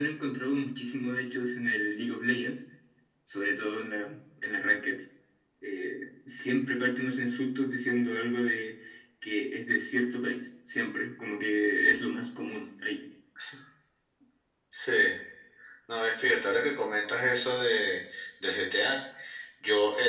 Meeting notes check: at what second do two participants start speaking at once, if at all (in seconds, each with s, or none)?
none